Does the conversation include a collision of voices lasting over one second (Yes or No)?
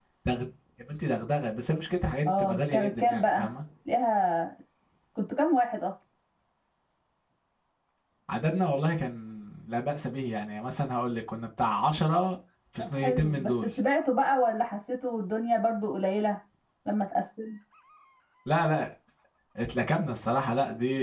Yes